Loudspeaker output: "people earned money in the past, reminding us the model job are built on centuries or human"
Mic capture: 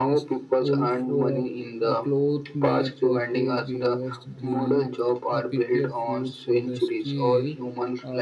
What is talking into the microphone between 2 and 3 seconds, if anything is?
both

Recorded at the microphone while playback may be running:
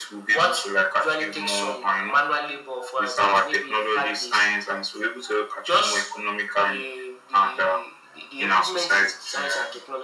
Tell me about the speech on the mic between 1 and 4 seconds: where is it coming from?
echo only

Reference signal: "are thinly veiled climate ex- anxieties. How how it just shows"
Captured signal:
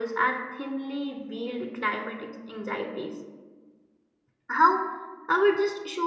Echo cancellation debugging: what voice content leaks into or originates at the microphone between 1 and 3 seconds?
echo only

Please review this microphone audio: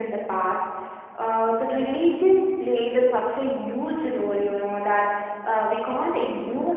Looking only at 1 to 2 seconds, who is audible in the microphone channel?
echo only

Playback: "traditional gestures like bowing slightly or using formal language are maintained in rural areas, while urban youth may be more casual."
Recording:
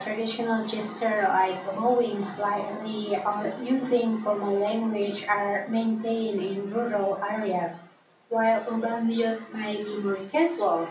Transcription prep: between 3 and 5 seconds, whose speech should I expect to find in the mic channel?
echo only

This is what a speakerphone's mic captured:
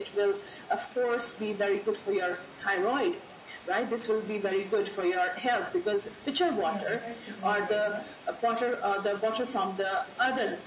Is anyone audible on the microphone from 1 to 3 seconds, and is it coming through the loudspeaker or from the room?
echo only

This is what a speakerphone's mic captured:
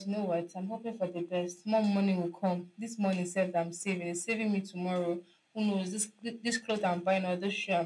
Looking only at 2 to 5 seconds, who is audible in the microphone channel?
echo only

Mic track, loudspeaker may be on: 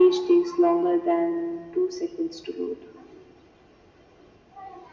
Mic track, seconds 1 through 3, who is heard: echo only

